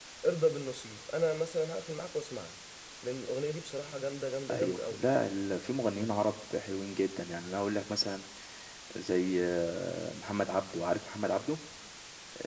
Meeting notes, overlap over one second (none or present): none